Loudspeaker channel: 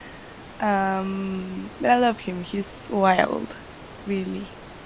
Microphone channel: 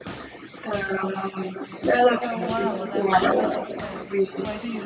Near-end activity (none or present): present